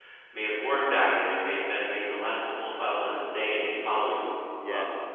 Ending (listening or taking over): listening